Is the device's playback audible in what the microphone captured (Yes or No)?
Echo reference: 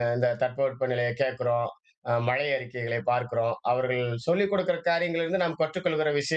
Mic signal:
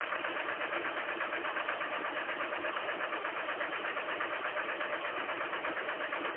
No